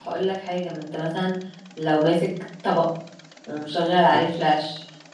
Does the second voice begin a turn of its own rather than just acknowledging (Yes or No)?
No